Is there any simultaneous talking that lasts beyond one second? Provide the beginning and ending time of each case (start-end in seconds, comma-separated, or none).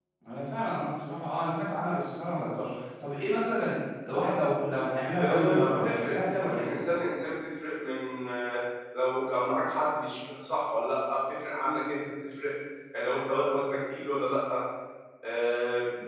5.2-6.9